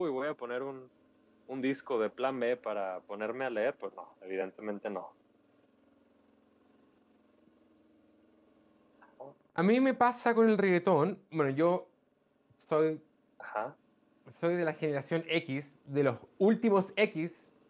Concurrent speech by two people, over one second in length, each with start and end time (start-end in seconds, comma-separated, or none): none